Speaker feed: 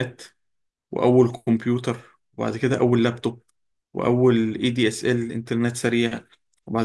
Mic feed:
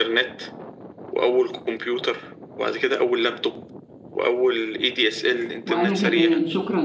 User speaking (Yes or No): Yes